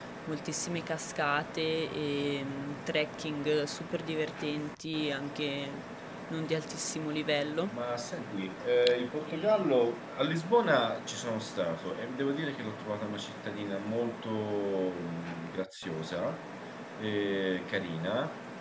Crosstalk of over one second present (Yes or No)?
No